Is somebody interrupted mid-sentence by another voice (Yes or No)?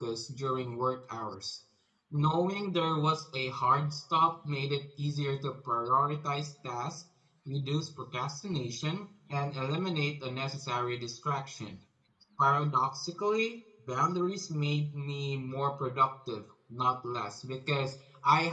No